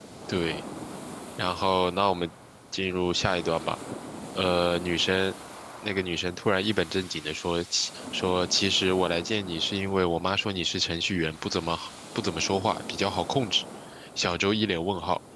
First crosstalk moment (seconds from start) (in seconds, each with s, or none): none